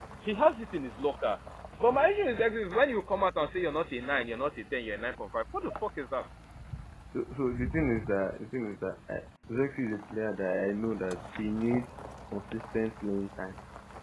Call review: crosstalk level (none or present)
none